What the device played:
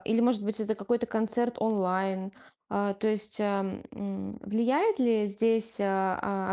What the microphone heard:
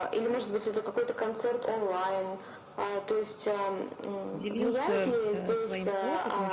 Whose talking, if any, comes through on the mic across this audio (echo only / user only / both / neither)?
both